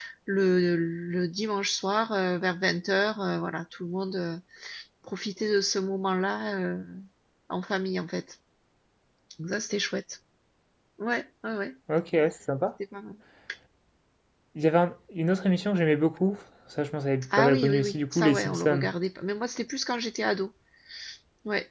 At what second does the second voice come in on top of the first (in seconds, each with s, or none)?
17.3 s